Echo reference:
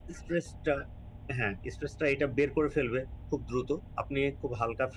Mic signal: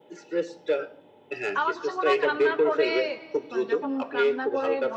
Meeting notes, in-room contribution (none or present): present